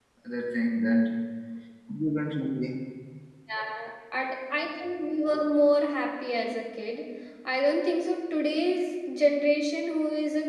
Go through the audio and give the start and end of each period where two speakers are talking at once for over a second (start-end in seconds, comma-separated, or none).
none